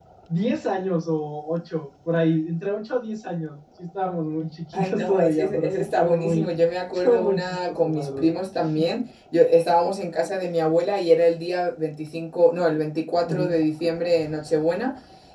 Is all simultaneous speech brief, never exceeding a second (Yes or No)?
No